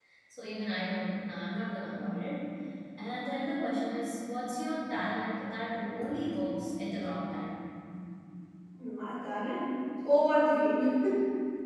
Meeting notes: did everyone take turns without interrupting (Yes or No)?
Yes